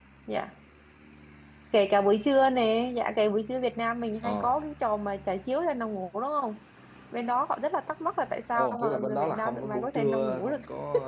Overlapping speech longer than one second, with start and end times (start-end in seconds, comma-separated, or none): 8.5-10.6